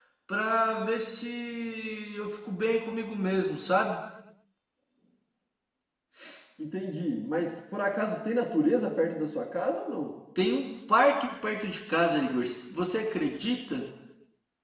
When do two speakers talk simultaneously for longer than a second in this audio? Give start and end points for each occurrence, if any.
none

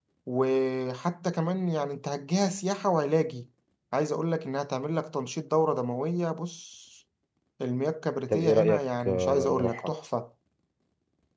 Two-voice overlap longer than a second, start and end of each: 8.3-9.9

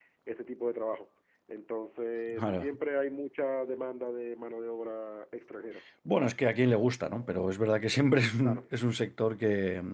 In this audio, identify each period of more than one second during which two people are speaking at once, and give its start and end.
none

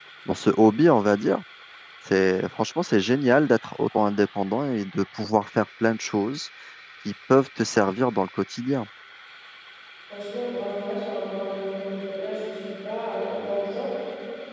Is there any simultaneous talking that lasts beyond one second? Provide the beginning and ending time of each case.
none

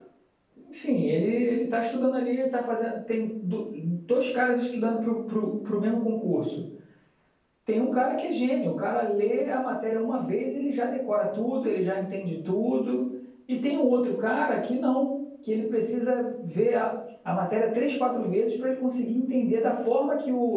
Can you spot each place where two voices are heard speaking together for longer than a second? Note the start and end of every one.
none

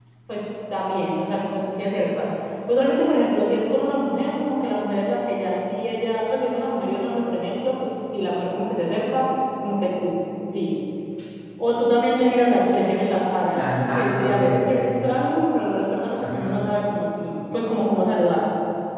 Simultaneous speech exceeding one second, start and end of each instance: 13.5-14.9

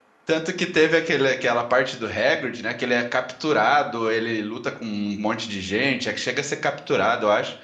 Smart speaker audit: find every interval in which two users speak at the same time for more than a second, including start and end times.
none

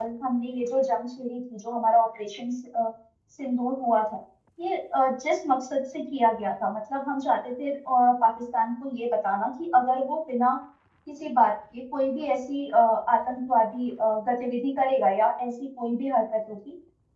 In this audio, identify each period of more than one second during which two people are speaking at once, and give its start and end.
none

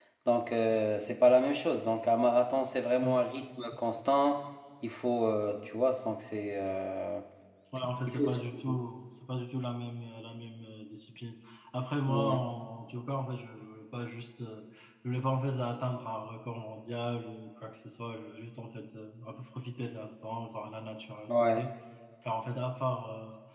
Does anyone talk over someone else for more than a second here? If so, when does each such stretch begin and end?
none

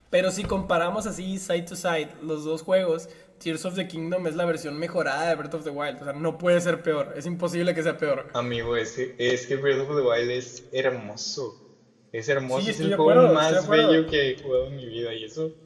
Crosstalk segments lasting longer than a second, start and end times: 12.5-14.0

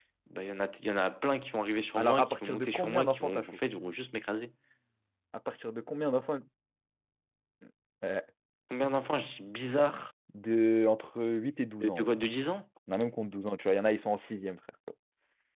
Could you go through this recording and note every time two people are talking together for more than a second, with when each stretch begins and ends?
2.0-3.5

